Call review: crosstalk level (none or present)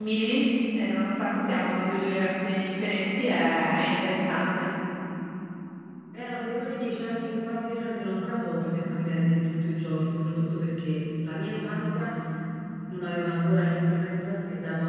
none